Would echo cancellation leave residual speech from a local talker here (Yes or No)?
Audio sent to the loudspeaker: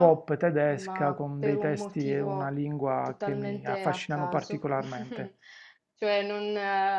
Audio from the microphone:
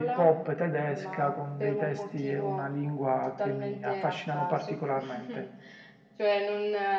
No